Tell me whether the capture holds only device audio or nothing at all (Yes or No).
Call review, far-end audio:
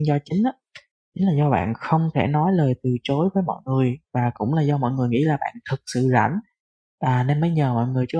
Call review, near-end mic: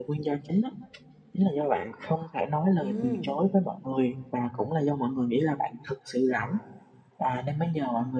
No